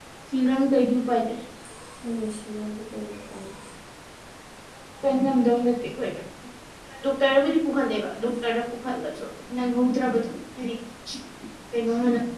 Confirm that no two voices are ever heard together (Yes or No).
Yes